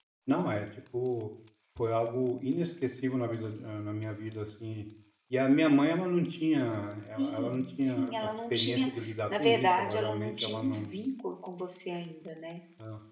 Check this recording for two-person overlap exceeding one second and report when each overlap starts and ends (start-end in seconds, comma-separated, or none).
7.2-8.9, 9.4-10.9